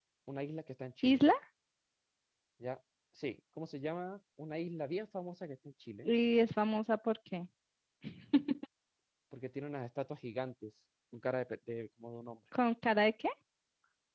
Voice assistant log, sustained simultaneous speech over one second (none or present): none